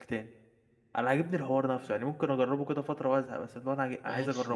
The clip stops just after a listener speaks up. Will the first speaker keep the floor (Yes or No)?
No